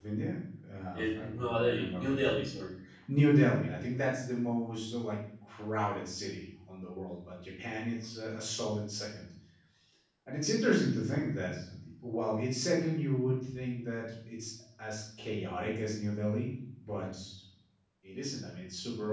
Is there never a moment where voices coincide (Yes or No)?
No